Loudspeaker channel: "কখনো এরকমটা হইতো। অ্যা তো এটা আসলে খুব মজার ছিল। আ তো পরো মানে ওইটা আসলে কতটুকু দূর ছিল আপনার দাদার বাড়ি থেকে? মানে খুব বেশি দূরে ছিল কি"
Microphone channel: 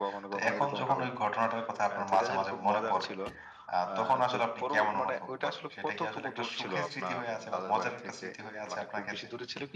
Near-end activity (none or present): present